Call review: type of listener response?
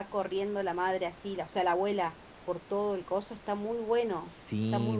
taking over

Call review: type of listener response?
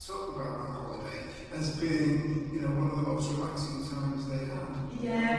taking over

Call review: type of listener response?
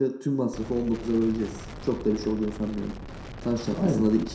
listening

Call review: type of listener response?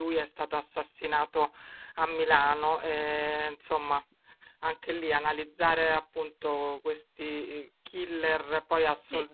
listening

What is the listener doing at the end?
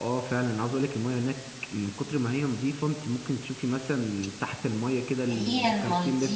taking over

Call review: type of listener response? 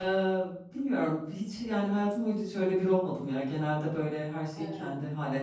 listening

